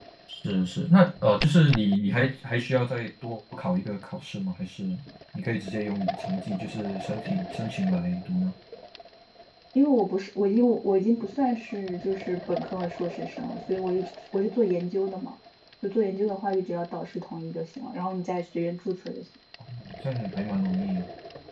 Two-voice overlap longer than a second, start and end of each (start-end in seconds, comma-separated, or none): none